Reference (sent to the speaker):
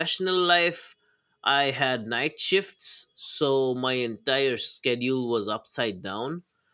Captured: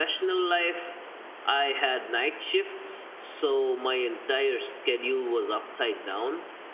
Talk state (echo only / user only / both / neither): echo only